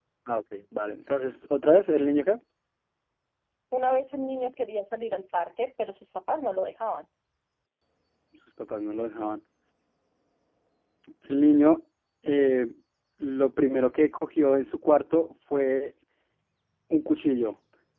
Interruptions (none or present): none